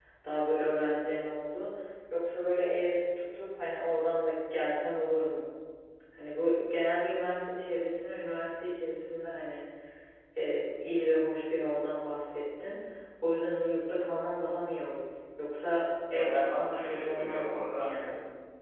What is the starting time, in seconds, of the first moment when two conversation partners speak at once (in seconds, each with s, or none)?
16.1 s